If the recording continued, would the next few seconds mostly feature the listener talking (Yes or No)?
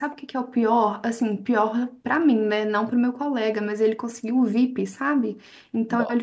No